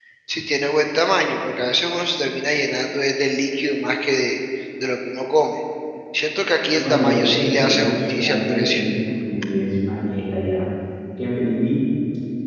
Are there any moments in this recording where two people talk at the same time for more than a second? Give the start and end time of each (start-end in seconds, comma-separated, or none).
6.7-8.8